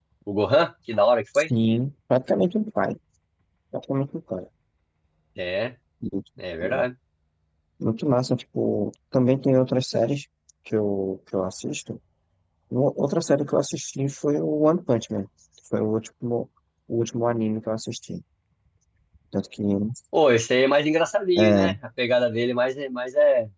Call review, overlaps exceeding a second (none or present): none